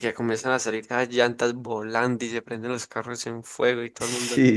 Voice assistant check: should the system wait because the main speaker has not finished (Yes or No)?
No